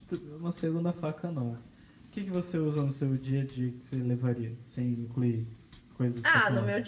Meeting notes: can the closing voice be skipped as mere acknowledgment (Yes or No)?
No